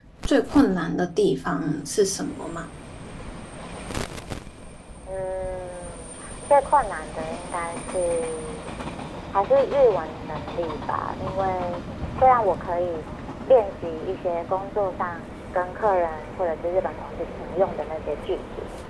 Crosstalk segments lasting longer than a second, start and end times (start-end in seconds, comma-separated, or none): none